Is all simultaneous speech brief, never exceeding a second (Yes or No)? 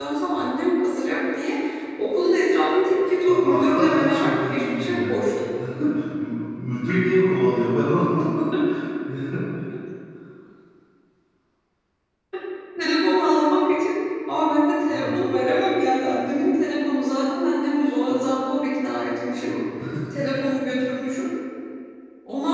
No